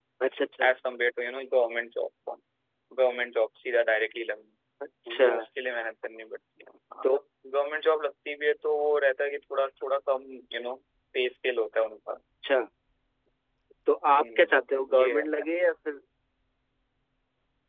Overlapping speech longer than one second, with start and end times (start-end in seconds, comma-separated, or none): 14.2-15.5